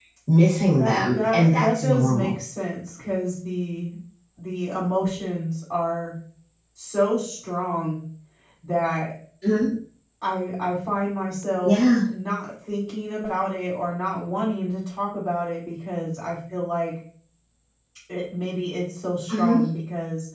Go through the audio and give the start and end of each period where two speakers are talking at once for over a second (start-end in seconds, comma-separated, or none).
0.8-2.4